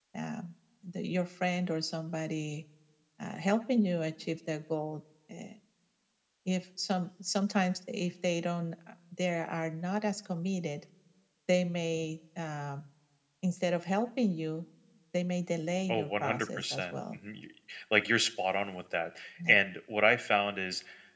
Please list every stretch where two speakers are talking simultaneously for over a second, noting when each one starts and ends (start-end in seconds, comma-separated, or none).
15.9-17.2